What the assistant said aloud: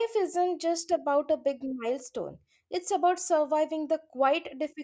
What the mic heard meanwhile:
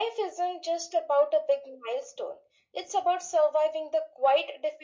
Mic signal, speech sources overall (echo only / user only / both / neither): echo only